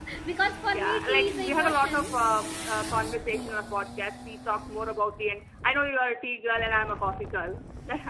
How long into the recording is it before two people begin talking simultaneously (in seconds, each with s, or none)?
0.7 s